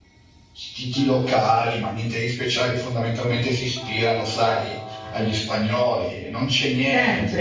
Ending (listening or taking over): taking over